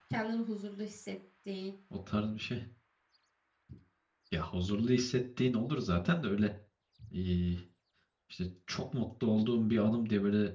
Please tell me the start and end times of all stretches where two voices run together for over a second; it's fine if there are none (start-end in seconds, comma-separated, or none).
none